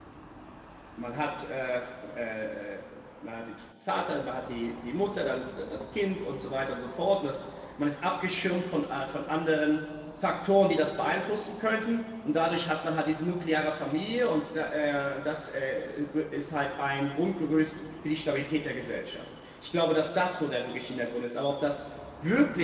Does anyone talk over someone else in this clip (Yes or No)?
No